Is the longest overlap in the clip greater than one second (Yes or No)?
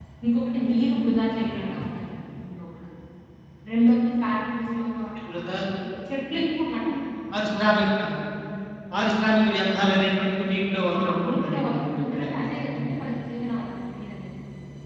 Yes